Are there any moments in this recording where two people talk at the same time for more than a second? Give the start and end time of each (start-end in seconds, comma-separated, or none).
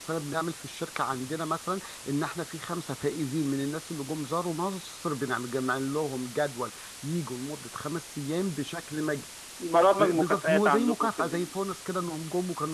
10.0-11.5